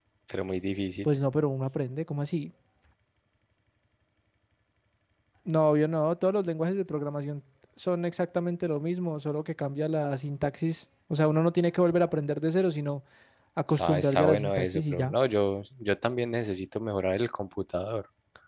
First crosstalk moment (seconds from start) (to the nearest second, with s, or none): 14 s